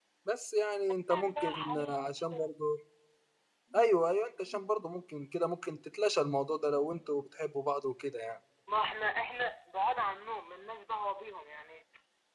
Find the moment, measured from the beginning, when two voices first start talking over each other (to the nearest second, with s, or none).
1 s